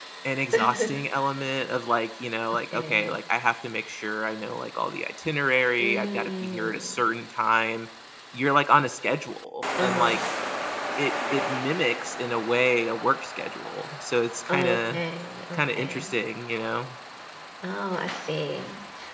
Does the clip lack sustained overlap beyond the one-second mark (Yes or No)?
No